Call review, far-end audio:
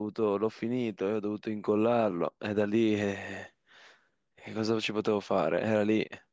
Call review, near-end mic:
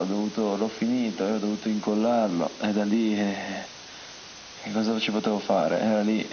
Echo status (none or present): present